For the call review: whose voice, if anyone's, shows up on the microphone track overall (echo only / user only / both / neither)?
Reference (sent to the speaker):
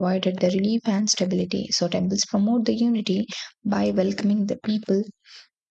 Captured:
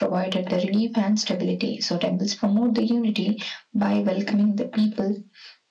echo only